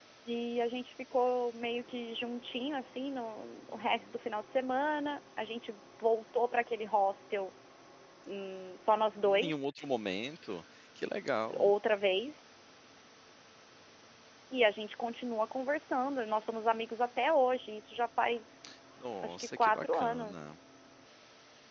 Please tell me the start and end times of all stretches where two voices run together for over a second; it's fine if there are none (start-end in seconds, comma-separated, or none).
19.2-20.5